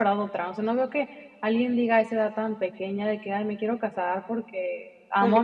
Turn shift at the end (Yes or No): No